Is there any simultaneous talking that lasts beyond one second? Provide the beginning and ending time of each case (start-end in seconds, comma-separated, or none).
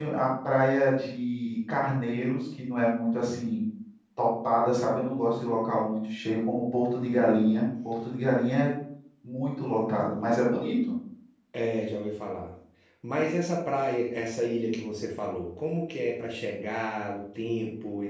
none